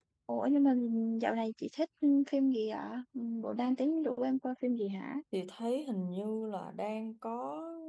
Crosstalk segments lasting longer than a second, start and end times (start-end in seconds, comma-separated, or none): none